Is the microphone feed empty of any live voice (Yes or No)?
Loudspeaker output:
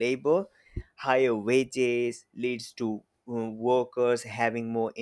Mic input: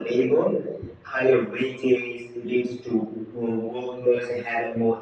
Yes